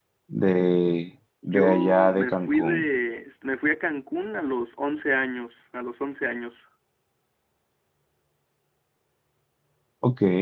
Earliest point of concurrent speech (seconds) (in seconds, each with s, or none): 1.4 s